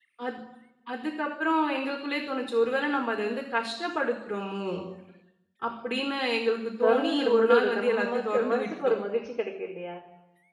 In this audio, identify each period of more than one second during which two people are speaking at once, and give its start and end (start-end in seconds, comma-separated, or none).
6.8-8.9